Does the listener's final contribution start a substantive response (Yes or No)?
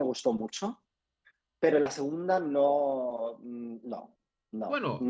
Yes